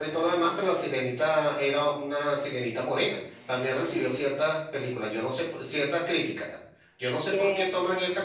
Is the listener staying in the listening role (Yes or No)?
Yes